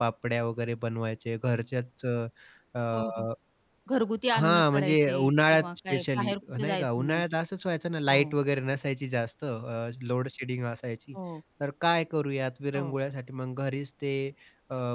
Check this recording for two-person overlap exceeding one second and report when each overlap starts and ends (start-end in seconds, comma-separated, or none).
4.4-7.2